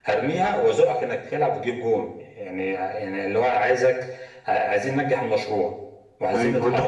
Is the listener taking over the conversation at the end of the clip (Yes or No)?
Yes